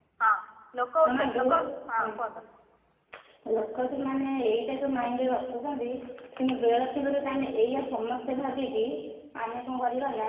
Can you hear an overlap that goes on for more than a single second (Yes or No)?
No